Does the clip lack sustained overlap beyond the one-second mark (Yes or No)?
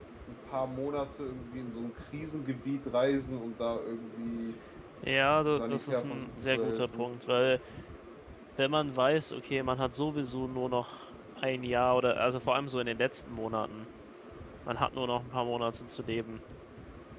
No